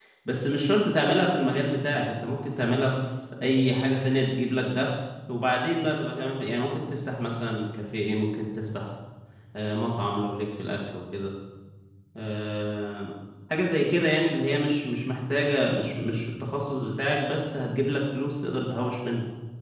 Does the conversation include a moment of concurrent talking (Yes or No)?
No